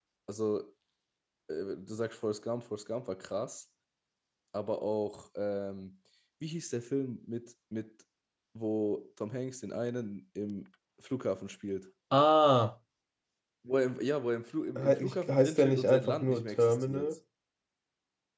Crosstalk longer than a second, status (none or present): present